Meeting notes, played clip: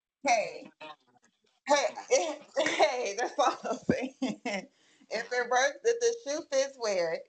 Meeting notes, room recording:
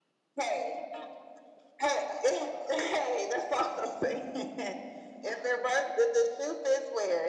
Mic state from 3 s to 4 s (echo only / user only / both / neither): echo only